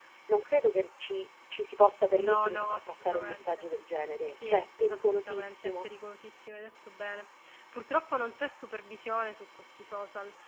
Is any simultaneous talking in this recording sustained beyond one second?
Yes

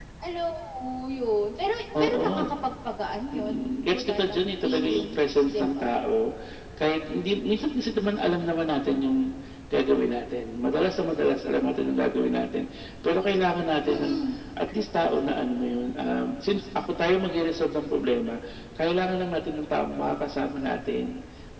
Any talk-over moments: Yes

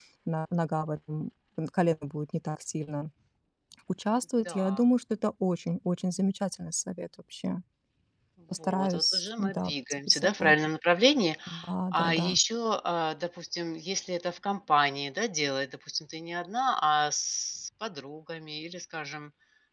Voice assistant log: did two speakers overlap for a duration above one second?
Yes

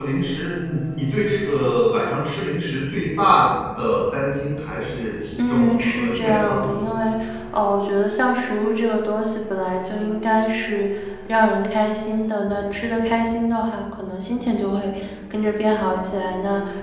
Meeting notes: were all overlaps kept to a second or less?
No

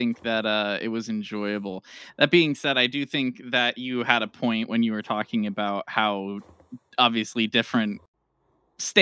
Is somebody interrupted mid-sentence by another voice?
No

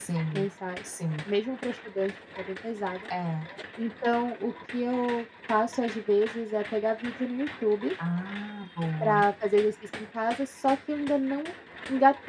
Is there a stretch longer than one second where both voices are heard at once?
No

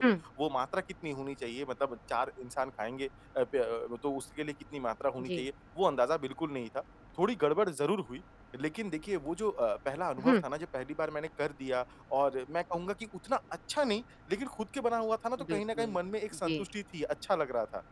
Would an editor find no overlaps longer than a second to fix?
Yes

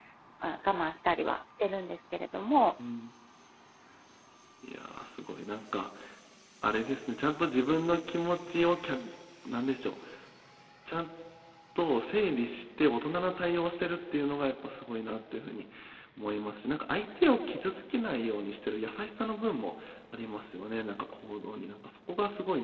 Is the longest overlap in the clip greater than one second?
No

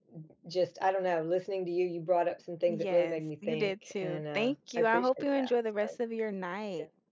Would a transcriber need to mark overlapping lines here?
Yes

